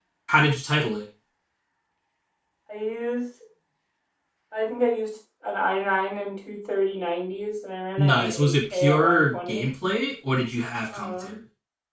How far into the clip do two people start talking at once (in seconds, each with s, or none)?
8.0 s